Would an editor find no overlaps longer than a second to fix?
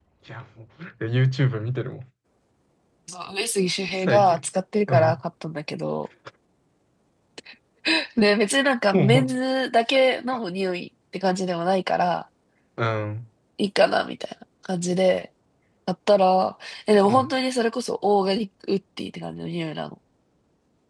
Yes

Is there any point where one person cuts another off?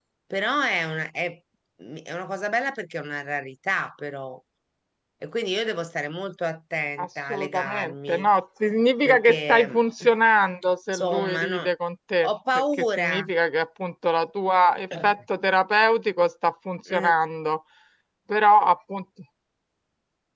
Yes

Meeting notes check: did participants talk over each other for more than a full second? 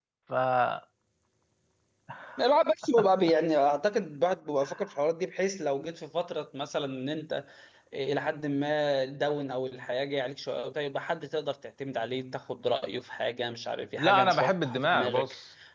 Yes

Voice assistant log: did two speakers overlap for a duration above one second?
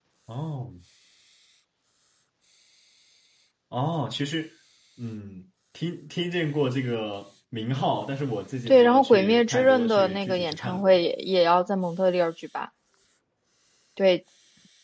Yes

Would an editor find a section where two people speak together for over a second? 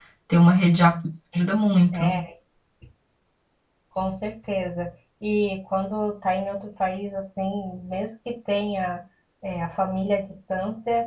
No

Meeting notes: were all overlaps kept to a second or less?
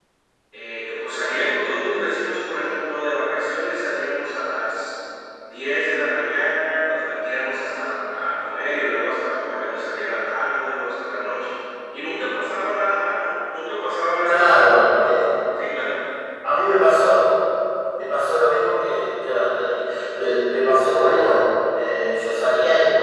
Yes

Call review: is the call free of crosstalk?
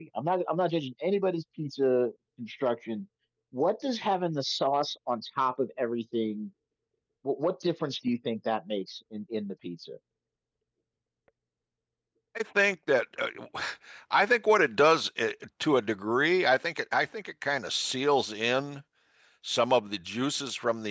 Yes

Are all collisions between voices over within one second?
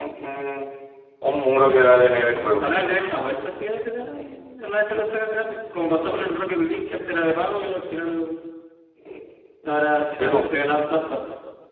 Yes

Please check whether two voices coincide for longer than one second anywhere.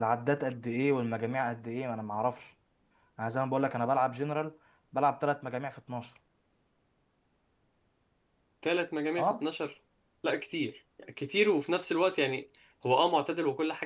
No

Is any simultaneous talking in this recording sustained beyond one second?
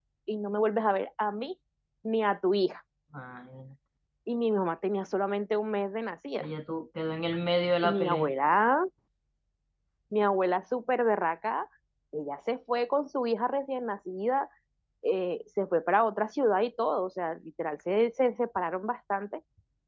No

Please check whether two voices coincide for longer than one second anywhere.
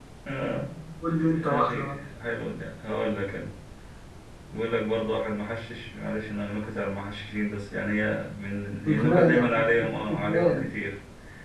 Yes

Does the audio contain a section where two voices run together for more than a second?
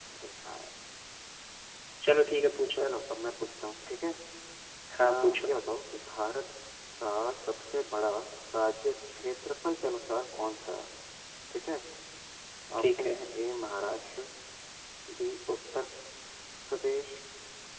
No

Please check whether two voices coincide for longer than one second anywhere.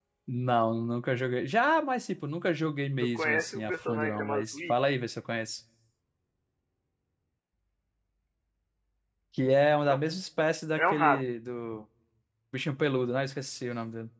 Yes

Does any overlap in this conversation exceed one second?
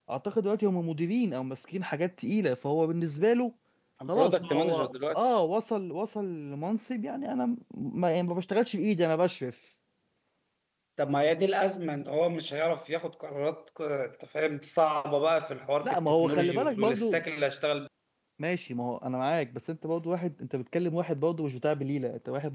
Yes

